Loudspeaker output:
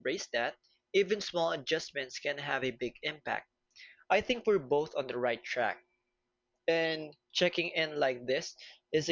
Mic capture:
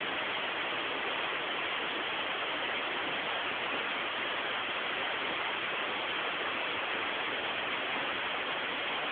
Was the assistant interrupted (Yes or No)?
No